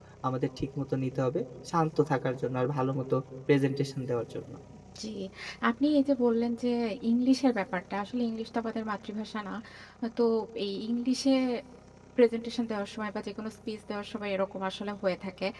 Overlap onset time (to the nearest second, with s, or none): none